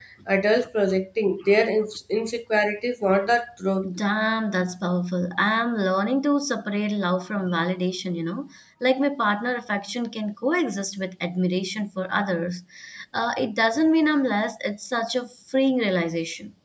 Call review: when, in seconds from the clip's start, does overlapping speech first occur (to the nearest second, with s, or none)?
none